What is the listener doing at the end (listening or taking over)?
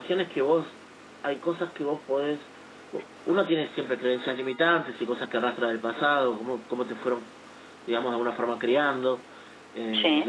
listening